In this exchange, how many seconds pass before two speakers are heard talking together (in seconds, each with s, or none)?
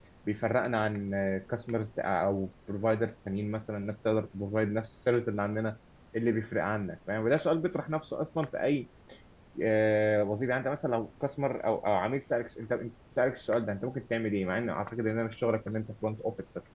none